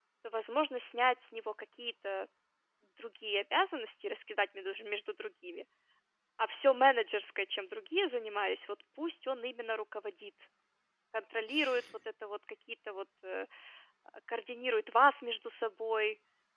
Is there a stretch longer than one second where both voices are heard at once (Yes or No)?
No